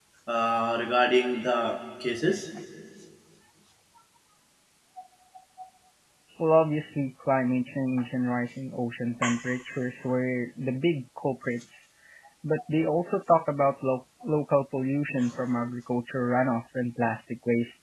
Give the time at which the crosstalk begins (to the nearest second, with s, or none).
none